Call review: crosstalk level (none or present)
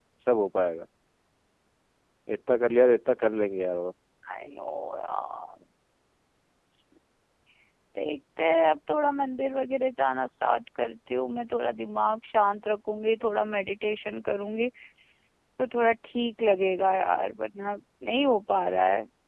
none